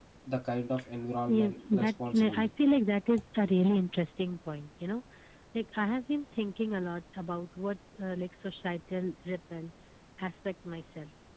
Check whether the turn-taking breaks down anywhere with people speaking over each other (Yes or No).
Yes